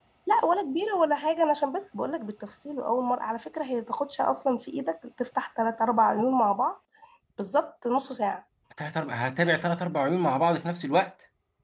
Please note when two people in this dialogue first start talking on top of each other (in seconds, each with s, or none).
none